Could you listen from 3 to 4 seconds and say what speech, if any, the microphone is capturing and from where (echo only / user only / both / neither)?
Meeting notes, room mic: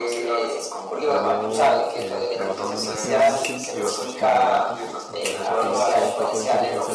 both